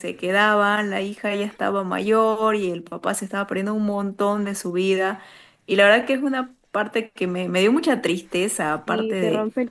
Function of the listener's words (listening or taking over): taking over